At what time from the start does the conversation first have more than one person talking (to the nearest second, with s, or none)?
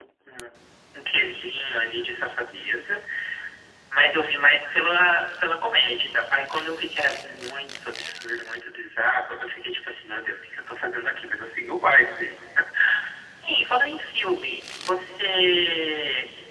none